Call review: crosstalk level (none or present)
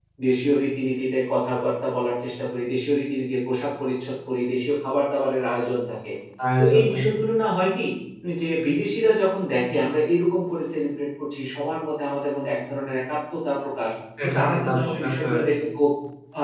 present